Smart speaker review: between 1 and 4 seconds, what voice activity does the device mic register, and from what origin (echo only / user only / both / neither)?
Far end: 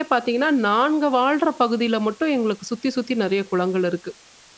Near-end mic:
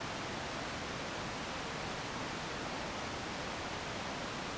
neither